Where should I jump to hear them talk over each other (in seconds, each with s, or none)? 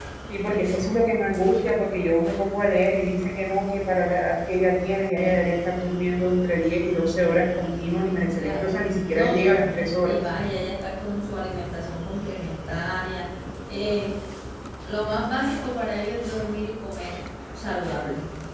8.4 s